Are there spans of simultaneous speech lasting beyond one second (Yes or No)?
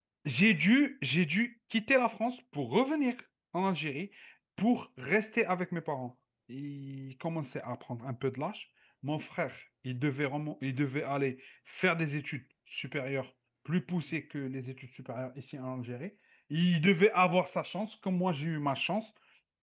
No